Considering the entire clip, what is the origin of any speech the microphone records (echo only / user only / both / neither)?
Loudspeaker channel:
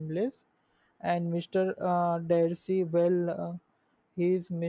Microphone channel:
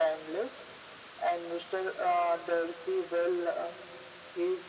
echo only